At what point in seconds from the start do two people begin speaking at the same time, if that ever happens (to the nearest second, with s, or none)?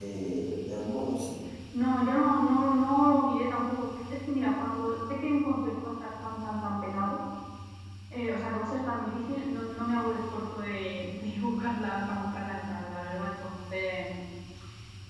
none